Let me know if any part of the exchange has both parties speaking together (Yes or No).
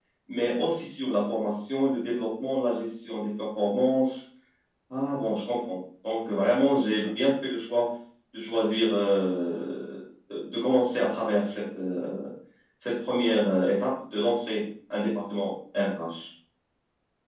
No